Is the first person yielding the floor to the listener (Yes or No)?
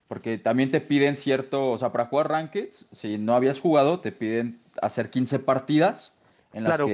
Yes